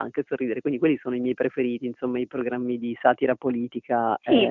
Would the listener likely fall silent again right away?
No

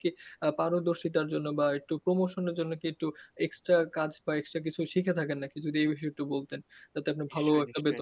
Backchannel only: No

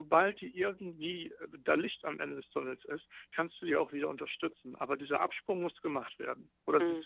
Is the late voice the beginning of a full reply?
Yes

